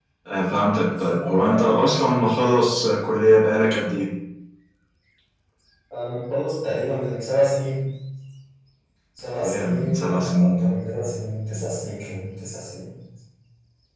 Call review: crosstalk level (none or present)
present